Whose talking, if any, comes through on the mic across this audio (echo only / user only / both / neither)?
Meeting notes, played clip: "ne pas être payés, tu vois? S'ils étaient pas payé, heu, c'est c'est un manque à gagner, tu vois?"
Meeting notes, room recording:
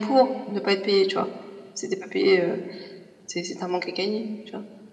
echo only